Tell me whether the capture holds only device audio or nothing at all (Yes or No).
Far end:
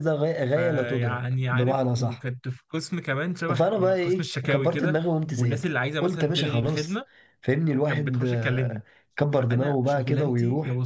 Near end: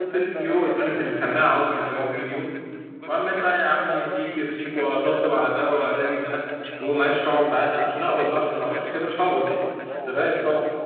No